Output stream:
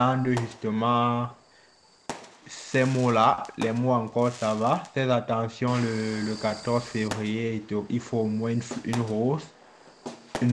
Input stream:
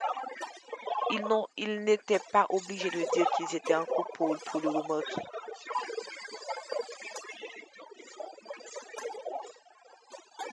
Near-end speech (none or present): present